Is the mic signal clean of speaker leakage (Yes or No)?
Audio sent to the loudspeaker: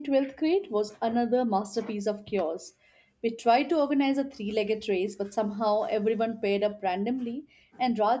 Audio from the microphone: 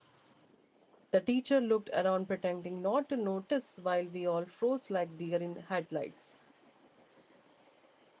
Yes